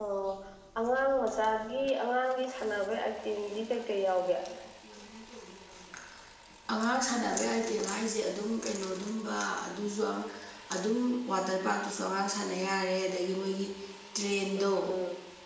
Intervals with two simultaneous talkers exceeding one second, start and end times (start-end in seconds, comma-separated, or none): none